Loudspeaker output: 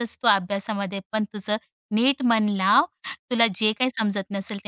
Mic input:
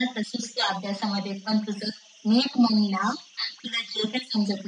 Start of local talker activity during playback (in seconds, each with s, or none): none